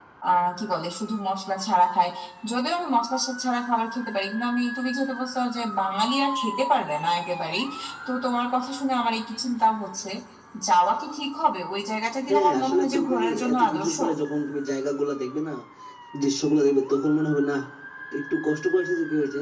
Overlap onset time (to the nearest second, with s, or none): 12 s